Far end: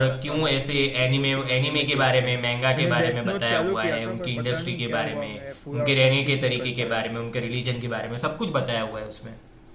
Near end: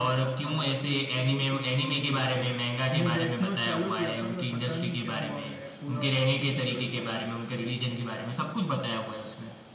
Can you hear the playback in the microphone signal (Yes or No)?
Yes